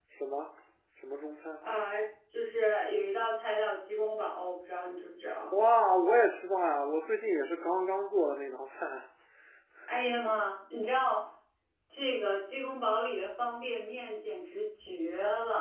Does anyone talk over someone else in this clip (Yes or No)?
No